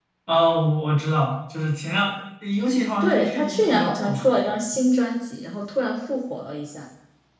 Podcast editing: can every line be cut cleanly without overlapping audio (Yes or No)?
No